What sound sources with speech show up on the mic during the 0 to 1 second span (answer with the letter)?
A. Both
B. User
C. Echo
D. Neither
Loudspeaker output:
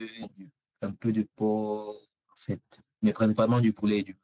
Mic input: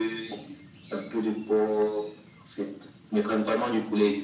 C